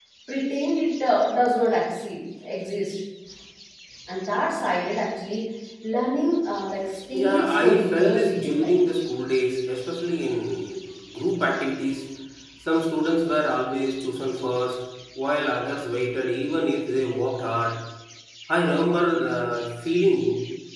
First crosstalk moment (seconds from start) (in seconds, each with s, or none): 7.1 s